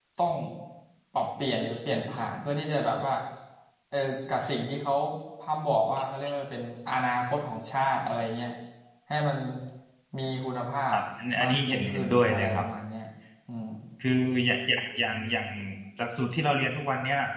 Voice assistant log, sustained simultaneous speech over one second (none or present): present